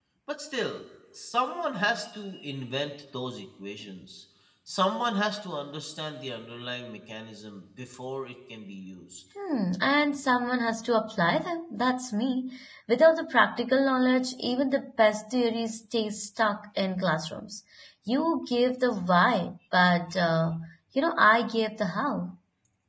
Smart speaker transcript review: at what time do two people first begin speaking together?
none

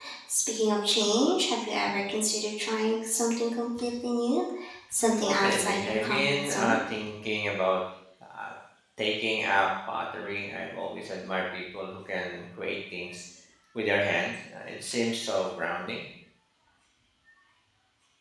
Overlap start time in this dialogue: 5.0 s

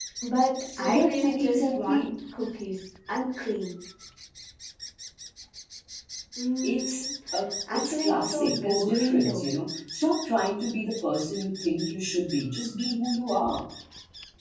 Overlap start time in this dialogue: 0.8 s

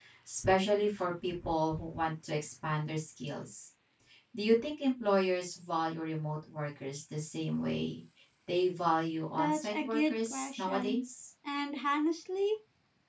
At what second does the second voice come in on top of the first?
9.3 s

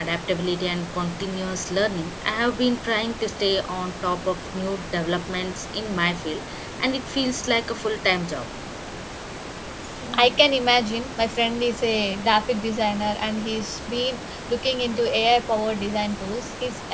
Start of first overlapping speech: none

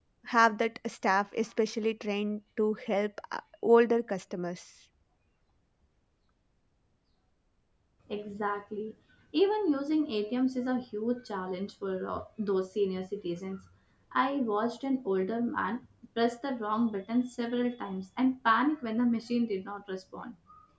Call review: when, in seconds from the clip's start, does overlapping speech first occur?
none

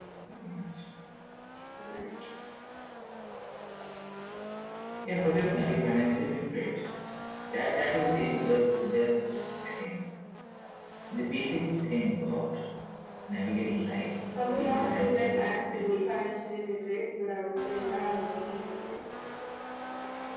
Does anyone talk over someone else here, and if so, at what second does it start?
14.3 s

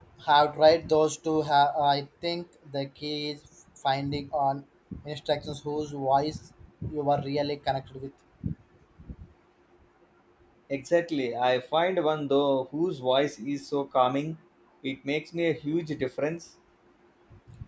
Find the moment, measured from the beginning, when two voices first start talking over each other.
none

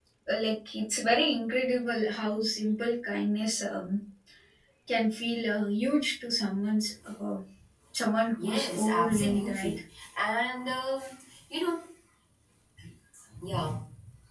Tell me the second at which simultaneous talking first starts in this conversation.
8.4 s

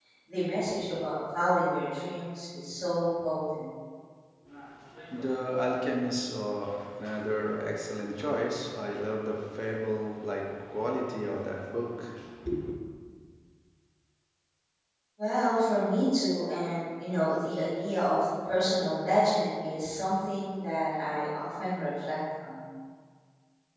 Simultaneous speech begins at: none

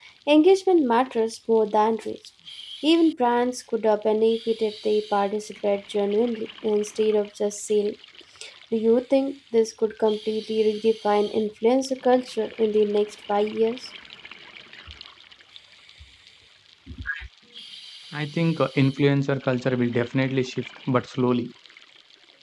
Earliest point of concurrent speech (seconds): none

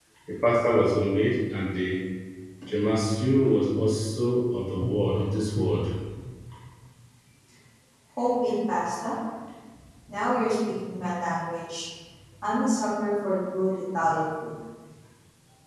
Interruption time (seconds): none

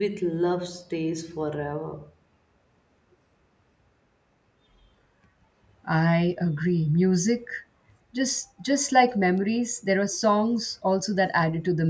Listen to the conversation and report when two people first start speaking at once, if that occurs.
none

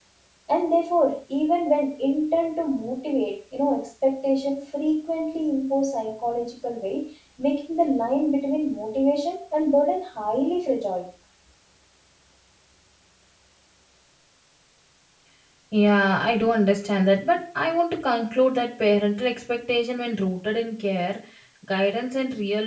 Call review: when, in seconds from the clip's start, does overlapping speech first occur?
none

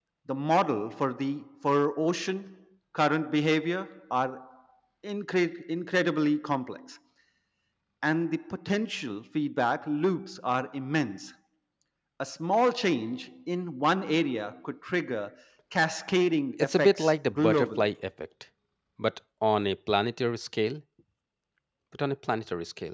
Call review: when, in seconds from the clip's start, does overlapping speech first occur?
16.6 s

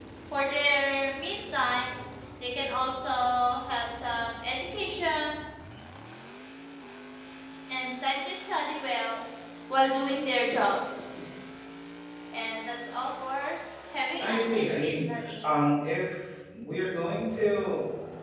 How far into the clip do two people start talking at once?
14.1 s

